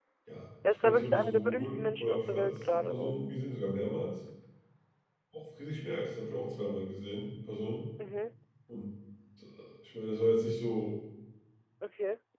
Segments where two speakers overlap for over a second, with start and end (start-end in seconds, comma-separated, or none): 0.8-3.2